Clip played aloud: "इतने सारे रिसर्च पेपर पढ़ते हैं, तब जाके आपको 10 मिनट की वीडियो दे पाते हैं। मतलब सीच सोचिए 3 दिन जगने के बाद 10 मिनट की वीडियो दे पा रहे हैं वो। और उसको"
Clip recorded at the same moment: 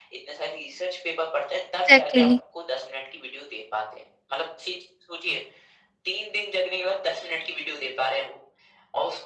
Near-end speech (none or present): present